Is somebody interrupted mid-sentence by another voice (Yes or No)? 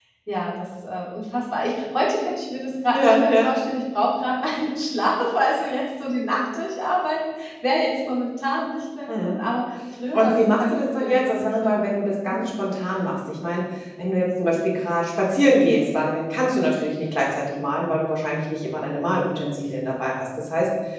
Yes